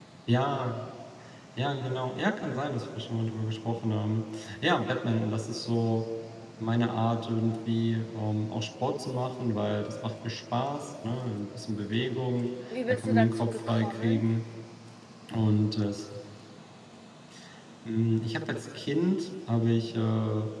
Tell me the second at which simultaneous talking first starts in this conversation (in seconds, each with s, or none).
12.7 s